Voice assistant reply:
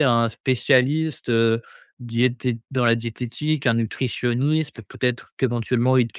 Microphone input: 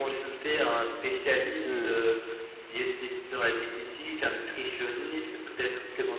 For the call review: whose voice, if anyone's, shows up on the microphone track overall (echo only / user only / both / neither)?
both